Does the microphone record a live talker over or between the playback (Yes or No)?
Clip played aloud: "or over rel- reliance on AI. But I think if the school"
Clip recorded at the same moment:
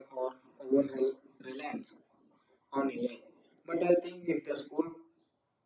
No